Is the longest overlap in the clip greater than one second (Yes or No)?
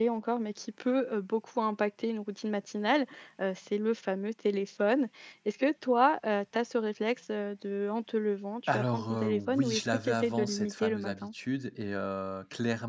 Yes